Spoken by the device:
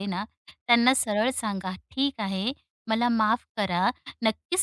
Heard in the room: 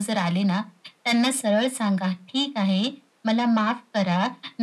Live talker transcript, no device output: none

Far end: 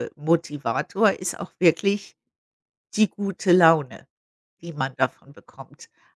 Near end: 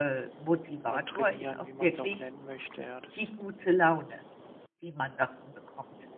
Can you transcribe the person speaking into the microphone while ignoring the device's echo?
oder trainieren, wie man es auch nennen möchte, ja. Das

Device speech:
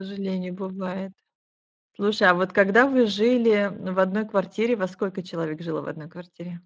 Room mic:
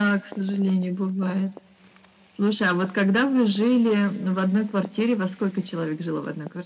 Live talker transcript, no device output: none

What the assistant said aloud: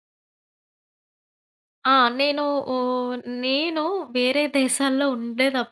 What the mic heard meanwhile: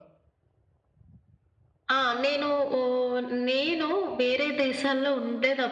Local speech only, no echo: none

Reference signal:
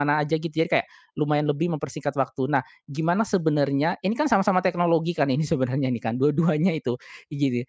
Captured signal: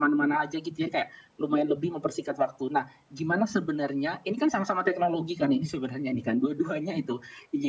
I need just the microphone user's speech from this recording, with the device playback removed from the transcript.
none

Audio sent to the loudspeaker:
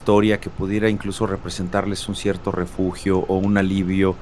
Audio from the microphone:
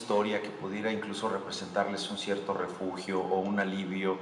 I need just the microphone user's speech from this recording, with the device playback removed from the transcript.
none

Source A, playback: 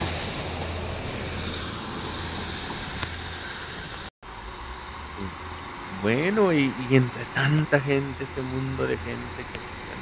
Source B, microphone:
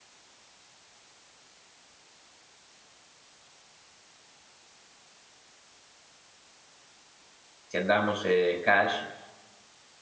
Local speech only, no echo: si andábamos, eh, cash.

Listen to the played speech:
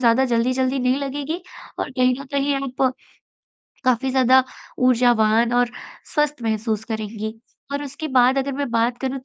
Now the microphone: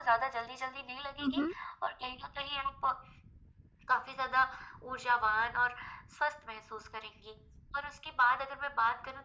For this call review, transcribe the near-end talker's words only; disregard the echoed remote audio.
हुँ, हुँ।

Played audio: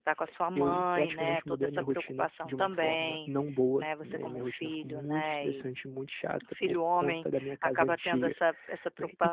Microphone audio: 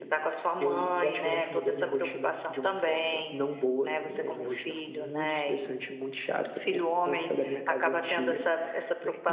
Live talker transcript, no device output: none

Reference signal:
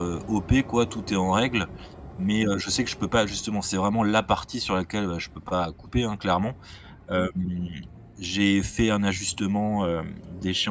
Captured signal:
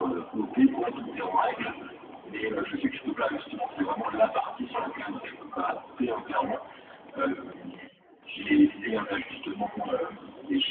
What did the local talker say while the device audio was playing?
none

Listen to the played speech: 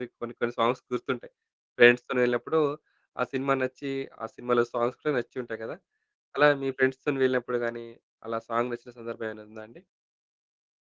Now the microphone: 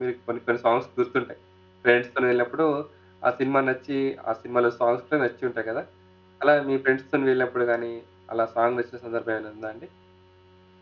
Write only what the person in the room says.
none

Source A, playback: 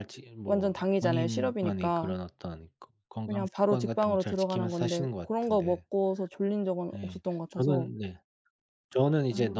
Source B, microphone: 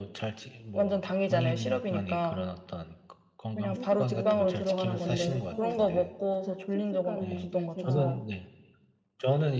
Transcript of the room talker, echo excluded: 음 일찍 자려고 마음속으로 노력하고 있고 식습관은 이제 제가

